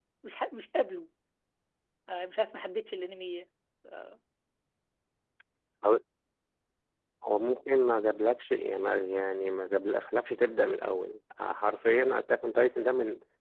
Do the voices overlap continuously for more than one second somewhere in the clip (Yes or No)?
No